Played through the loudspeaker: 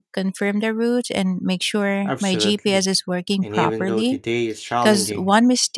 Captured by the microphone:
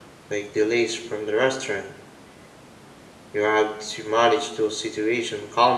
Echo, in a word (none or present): none